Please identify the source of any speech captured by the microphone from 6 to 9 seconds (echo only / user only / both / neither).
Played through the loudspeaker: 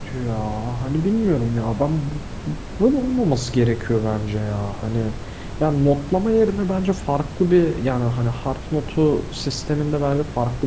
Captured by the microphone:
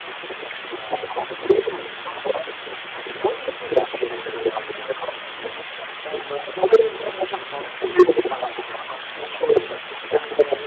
echo only